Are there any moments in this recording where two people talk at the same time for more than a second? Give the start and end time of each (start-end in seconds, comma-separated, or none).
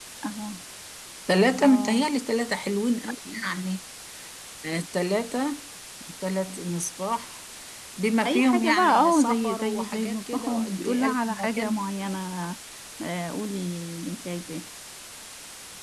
8.2-11.9